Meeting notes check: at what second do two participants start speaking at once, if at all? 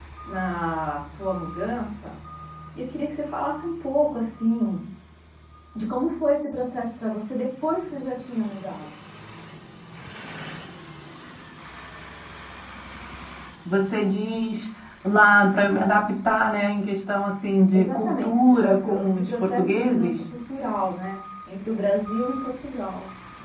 17.7 s

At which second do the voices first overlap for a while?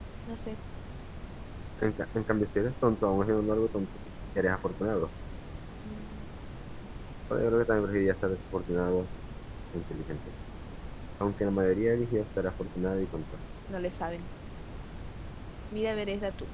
none

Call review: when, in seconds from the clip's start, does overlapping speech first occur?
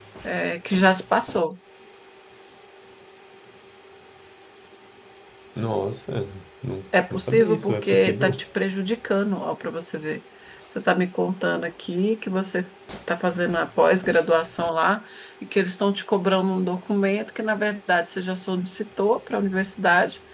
7.1 s

